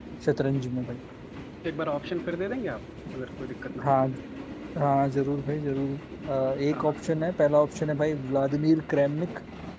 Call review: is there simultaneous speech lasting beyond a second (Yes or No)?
No